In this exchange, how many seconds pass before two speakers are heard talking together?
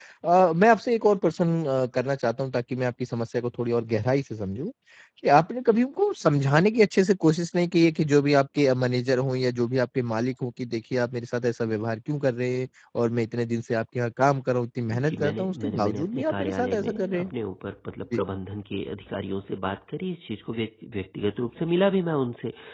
14.9 s

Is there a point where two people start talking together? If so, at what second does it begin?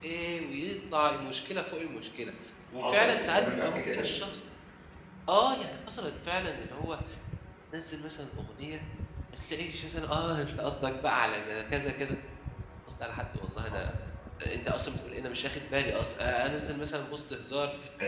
2.8 s

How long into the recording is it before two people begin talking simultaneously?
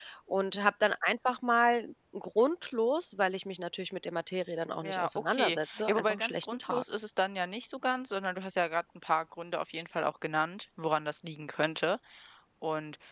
4.8 s

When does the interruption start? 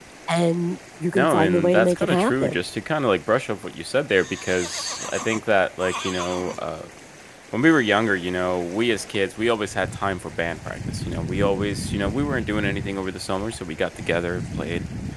1.1 s

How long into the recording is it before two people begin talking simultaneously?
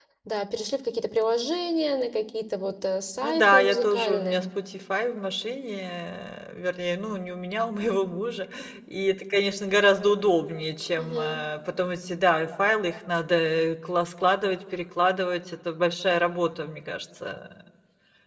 3.2 s

